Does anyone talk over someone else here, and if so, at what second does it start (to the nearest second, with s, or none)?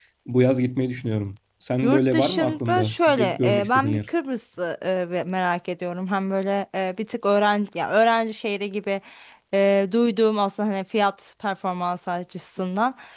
2 s